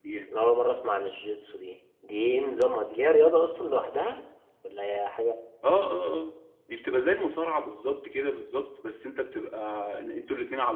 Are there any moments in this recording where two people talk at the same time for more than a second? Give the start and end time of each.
none

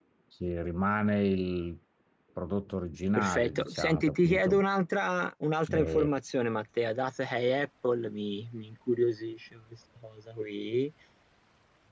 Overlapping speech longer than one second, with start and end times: 3.2-4.6

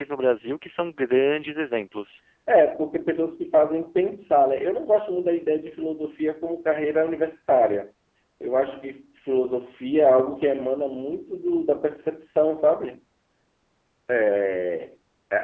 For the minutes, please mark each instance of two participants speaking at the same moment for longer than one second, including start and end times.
none

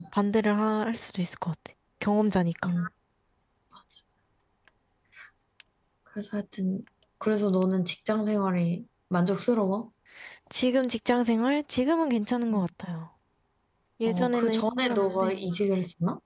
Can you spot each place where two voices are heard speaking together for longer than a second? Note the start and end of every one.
14.1-15.4

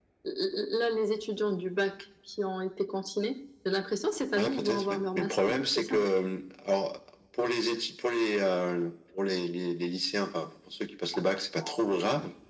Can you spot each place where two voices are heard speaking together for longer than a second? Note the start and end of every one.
4.4-6.0

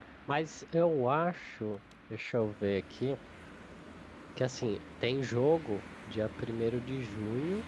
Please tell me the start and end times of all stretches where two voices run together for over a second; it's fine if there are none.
none

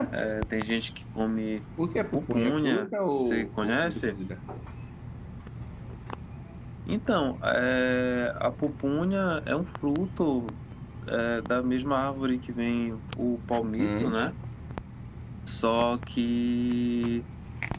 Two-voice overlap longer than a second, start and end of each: 2.1-4.2

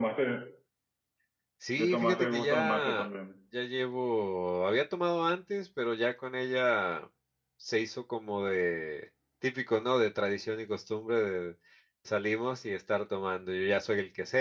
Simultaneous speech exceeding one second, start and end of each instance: 1.8-3.1

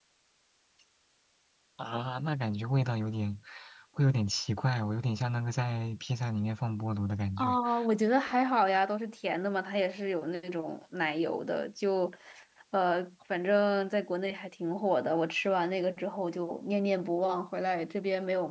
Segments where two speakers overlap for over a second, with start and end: none

